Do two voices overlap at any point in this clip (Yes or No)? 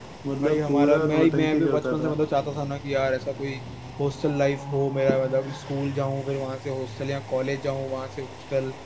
Yes